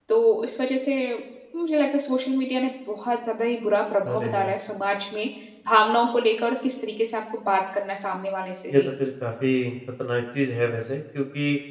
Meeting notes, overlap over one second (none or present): none